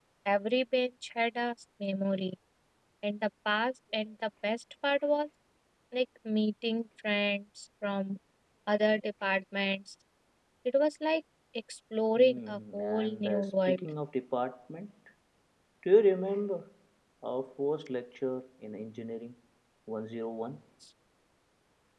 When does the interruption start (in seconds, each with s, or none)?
12.2 s